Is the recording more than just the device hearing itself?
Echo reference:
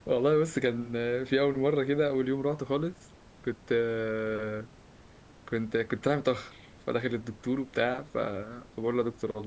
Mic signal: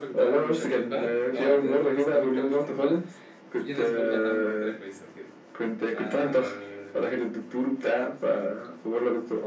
Yes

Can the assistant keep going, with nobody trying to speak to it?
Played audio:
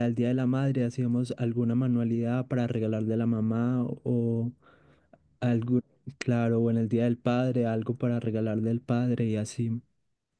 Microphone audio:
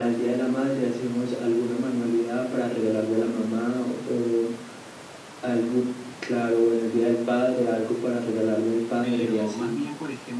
No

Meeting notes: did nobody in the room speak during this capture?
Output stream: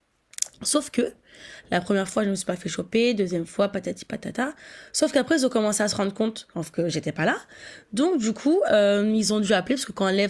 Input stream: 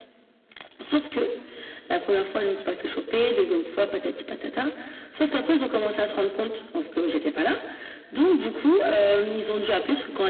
Yes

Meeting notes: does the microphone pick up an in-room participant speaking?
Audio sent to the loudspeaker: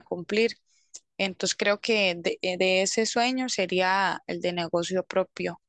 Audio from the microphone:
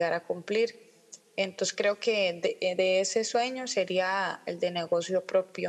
No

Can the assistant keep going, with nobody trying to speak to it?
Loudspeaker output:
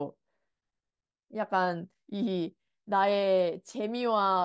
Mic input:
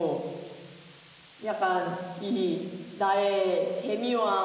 Yes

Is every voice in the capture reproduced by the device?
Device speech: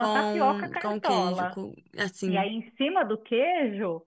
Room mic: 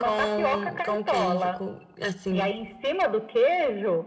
Yes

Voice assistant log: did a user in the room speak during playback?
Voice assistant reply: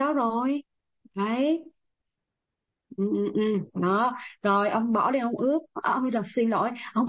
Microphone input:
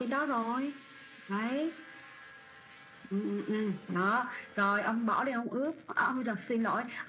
No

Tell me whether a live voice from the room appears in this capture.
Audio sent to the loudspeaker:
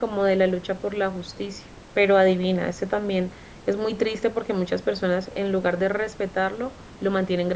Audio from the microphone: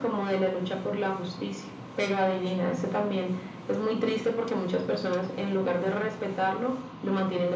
No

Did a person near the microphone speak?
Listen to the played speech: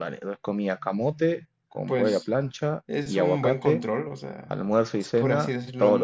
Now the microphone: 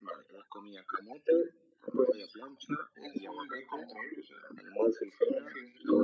No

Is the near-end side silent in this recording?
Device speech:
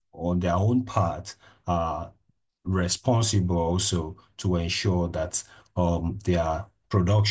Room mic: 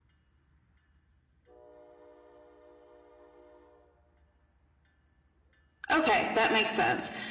No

